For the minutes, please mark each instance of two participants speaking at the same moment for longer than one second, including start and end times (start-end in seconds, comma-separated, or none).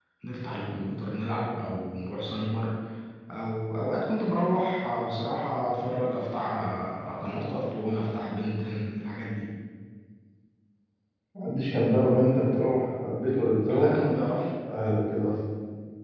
none